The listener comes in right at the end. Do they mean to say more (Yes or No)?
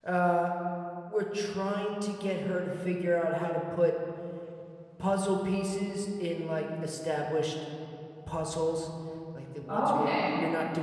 No